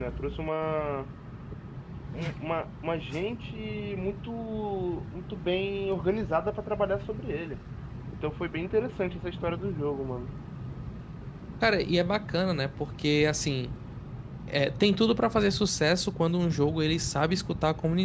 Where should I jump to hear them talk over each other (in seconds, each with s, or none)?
none